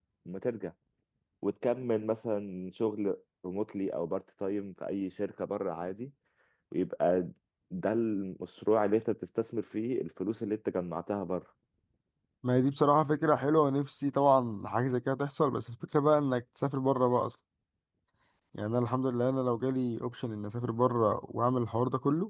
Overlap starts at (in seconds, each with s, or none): none